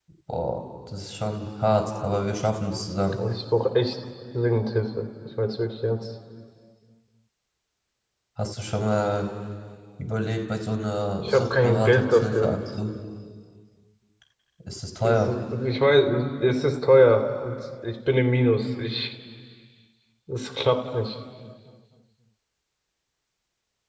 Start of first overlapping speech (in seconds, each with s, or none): 11.2 s